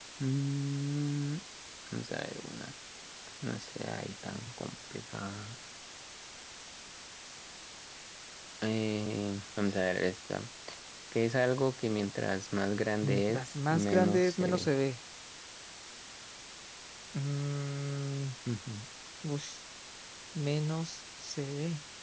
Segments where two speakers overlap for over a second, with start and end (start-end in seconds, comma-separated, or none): 13.0-14.7